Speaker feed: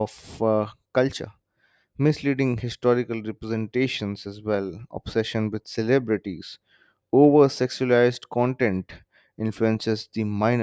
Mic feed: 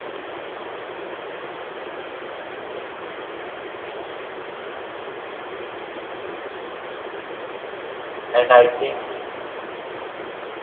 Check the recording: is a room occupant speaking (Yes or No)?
Yes